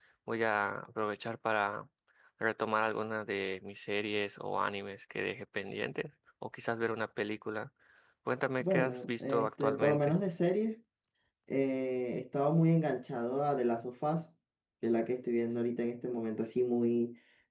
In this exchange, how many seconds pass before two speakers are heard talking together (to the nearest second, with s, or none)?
9 s